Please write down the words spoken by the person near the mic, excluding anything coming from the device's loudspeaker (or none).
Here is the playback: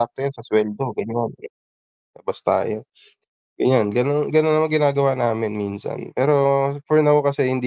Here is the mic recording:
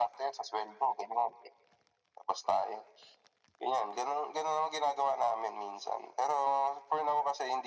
none